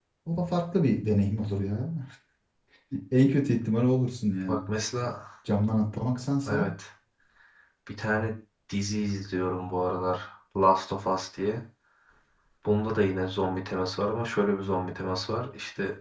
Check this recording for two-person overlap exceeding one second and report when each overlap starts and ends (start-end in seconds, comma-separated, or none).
none